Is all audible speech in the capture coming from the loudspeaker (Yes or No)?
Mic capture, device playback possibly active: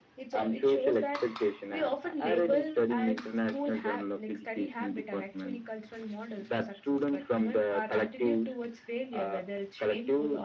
No